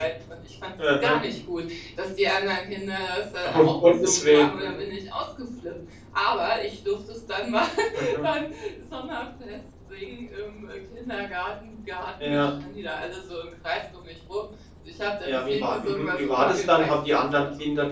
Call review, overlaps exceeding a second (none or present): present